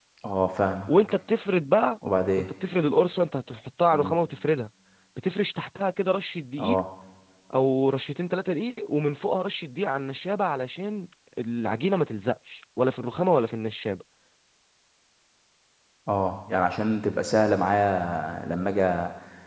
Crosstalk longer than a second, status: none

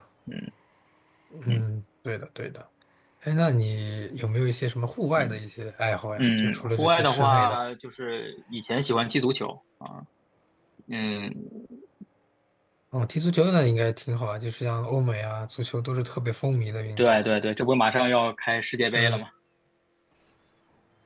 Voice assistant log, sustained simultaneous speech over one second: present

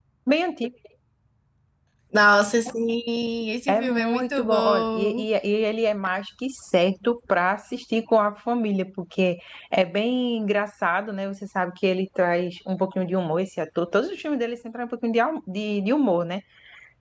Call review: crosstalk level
present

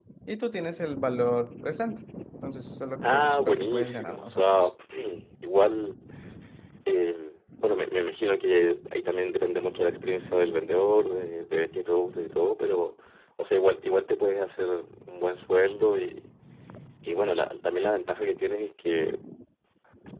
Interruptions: present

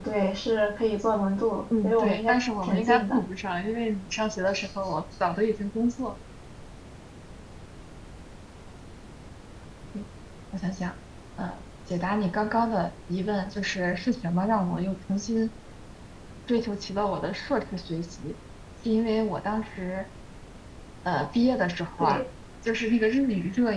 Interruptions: present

